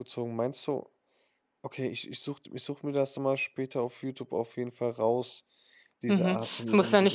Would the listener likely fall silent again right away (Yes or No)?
No